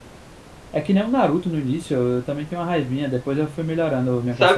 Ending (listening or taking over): taking over